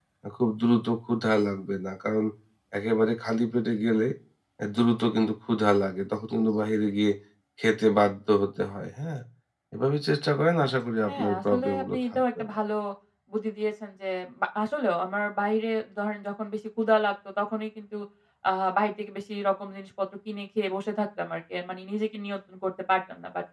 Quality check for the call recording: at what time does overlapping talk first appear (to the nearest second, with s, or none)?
11 s